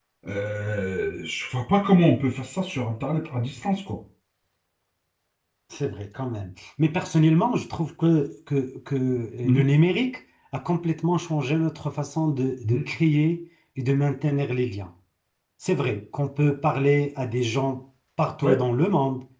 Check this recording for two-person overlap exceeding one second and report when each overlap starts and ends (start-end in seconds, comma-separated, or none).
none